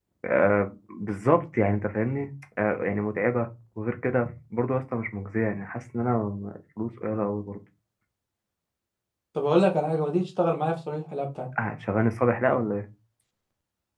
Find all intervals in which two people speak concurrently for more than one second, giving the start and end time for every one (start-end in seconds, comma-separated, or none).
none